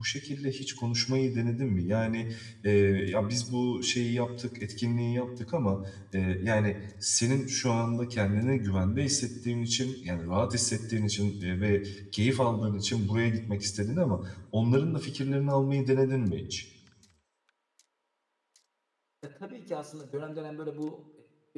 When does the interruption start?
none

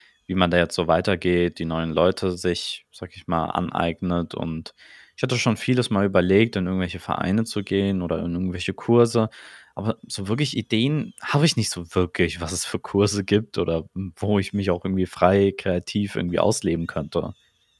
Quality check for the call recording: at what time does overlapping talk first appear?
none

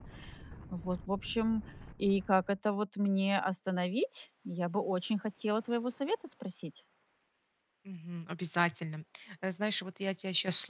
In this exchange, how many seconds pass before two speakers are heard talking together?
none

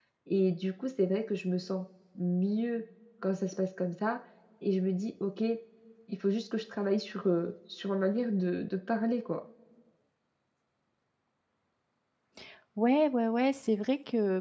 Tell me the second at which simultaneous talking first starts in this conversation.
none

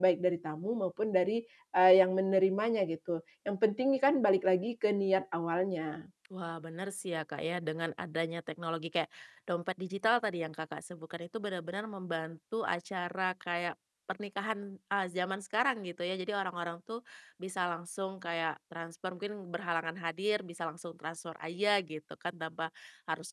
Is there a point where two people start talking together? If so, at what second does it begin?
none

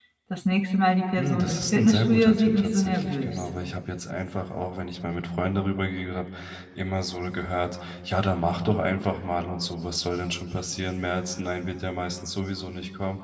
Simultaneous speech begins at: 1.2 s

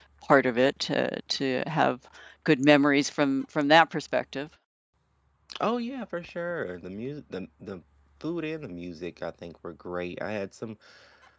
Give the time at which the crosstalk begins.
none

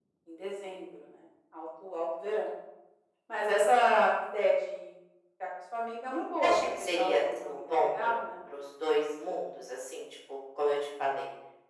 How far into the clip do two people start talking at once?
6.4 s

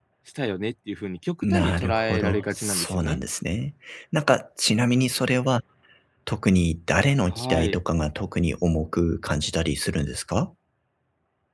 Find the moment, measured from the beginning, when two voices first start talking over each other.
1.4 s

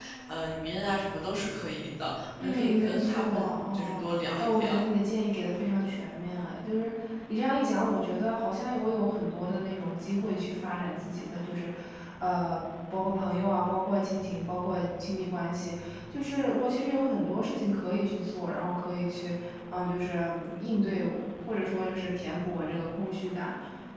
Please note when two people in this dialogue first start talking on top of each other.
2.4 s

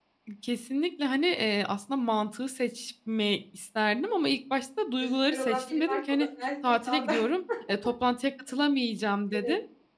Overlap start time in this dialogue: 5.0 s

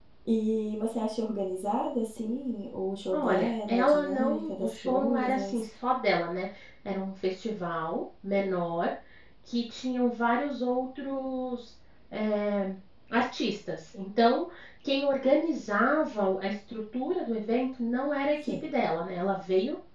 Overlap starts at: 3.1 s

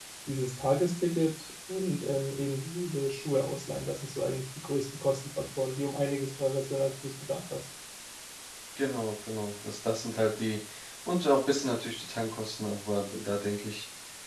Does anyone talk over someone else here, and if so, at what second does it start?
none

